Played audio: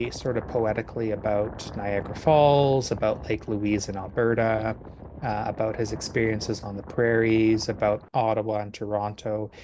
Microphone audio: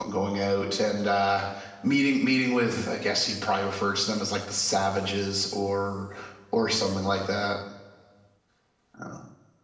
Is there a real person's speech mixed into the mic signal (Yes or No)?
Yes